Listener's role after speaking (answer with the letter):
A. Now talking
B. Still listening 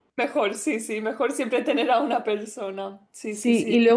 A